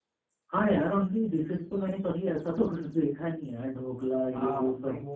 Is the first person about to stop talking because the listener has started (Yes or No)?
Yes